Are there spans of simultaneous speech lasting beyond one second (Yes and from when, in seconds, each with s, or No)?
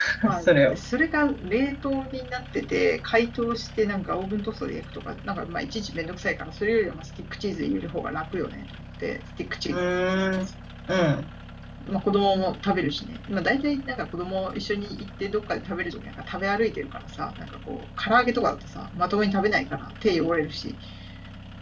No